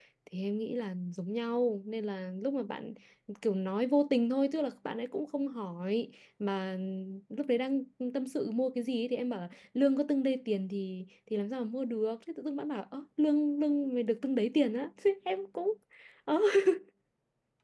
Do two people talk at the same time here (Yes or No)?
No